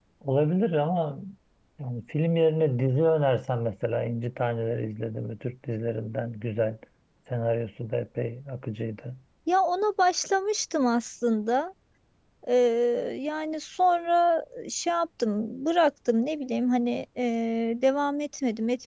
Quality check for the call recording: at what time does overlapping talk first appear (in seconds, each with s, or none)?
none